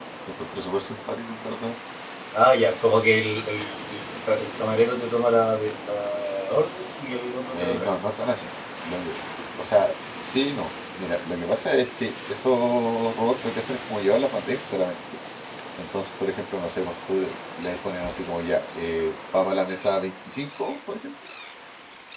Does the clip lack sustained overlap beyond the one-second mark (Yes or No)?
Yes